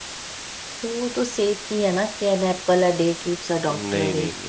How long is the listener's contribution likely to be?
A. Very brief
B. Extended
B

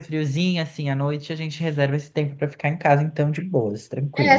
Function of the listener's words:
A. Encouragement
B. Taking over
B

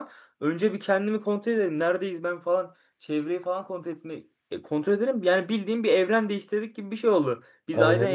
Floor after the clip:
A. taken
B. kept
B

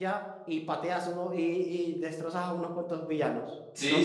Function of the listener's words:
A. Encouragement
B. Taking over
B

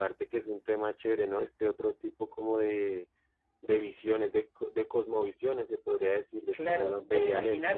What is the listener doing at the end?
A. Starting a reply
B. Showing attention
A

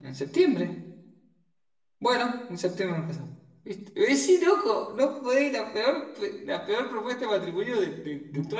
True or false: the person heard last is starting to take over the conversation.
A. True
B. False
A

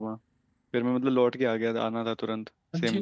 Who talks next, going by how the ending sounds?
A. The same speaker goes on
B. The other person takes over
B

